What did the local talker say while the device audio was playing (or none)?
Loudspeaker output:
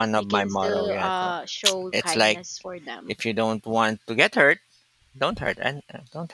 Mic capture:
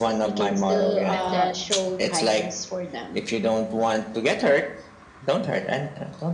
And then